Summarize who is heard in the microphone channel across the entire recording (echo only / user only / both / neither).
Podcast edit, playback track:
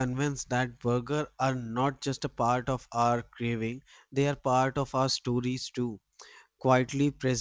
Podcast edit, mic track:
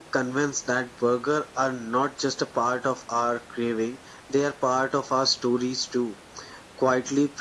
echo only